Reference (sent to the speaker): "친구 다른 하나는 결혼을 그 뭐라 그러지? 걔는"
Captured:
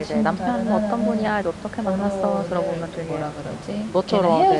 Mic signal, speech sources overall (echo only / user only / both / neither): both